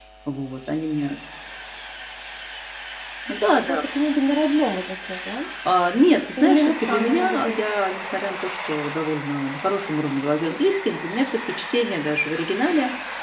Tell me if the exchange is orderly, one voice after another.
No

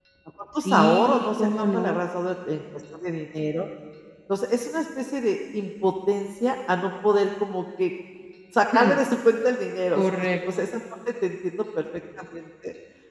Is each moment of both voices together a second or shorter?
No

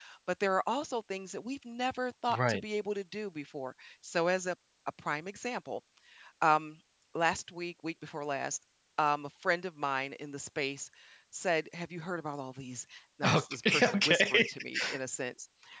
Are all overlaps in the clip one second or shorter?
No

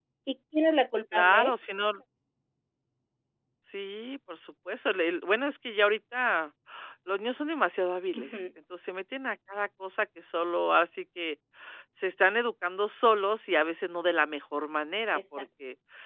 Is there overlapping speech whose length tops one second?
No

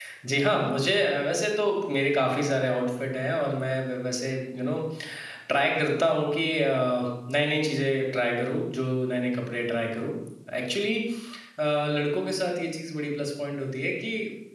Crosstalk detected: No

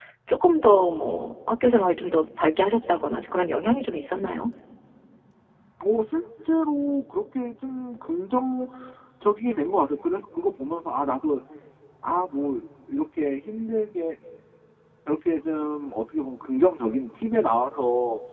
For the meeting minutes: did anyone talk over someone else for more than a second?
No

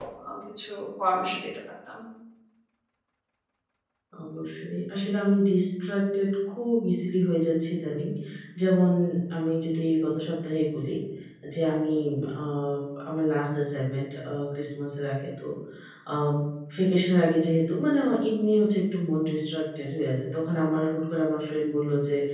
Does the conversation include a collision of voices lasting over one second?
No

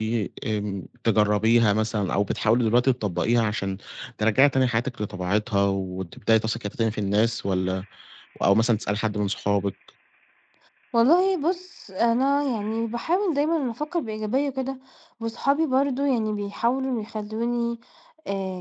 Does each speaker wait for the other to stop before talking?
Yes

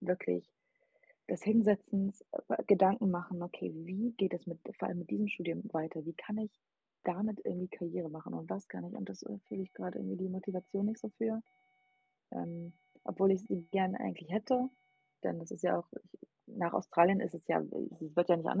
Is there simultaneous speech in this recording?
No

